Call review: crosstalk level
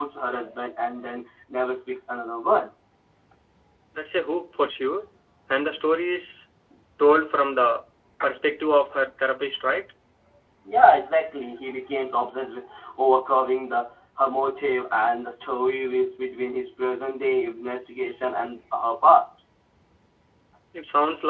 none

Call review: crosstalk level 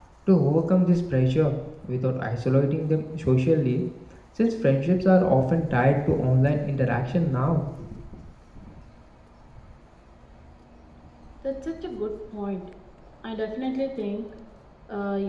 none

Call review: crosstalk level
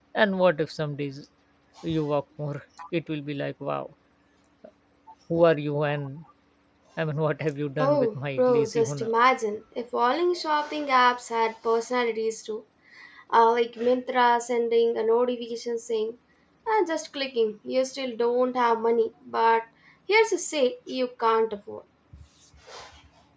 present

